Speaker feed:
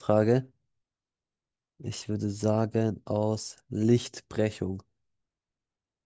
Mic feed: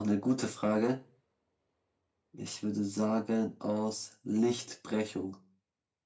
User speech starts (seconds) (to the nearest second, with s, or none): none